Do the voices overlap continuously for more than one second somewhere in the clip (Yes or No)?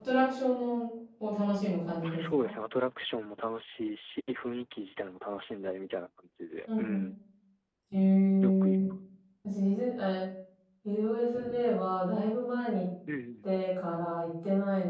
No